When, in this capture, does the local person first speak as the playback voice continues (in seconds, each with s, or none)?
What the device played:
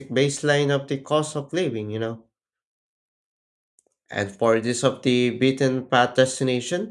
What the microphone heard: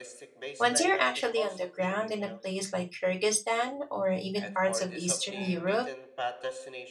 0.6 s